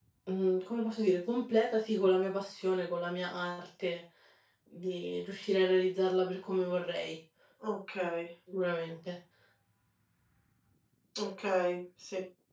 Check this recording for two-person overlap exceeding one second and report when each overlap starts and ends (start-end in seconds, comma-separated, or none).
none